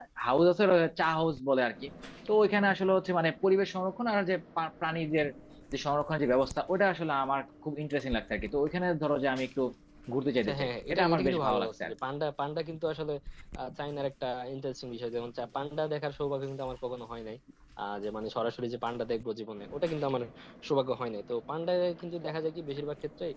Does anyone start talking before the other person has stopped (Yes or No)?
Yes